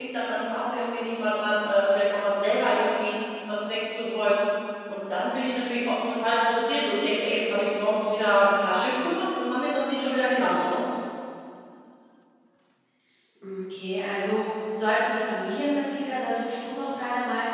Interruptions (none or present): none